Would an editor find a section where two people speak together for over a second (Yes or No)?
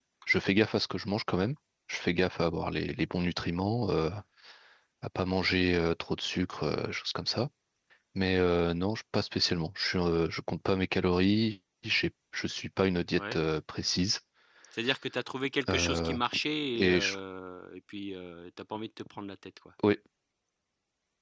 No